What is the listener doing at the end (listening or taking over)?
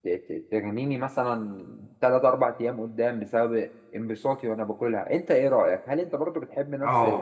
taking over